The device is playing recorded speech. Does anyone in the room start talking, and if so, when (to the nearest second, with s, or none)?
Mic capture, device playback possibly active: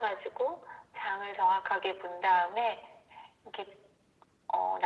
none